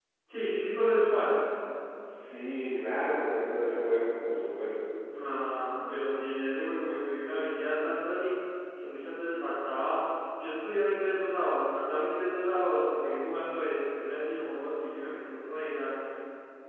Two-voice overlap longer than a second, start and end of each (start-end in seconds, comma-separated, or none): none